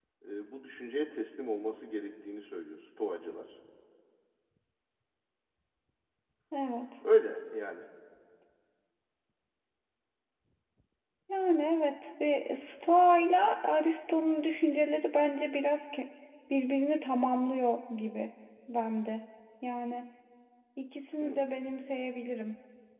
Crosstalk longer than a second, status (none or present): none